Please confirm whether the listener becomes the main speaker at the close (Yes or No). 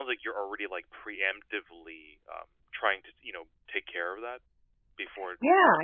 Yes